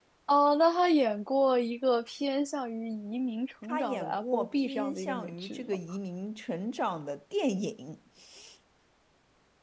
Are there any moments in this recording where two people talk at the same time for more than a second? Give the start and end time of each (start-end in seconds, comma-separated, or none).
3.6-5.8